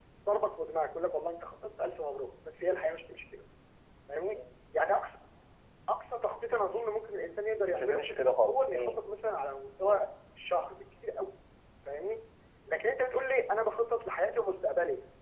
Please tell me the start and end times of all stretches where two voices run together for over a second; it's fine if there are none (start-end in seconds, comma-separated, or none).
none